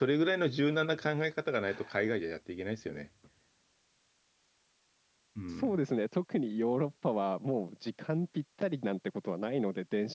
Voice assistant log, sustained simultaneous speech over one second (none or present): none